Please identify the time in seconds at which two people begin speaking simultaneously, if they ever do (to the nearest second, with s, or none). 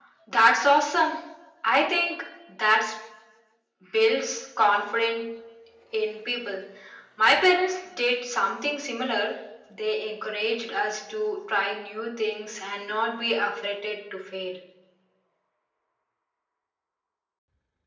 none